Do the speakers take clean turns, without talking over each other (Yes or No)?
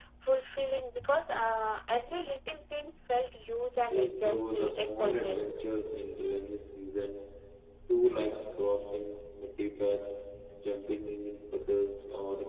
No